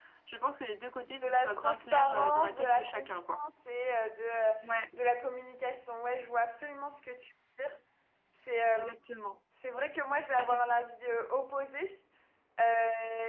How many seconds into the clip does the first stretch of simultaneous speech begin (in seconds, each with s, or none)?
1.2 s